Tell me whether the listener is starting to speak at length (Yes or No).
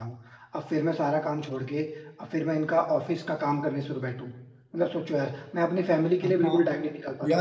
Yes